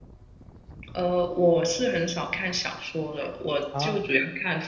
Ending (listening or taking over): listening